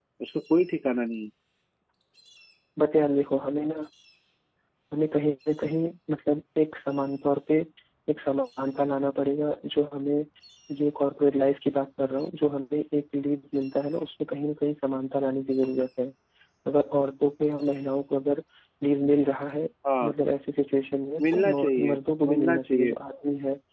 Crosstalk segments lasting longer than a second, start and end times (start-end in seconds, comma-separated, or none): 21.2-22.9